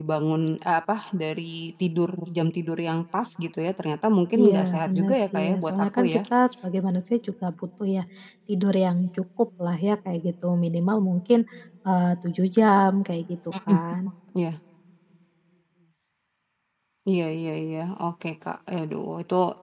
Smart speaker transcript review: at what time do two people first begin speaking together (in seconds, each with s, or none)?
4.3 s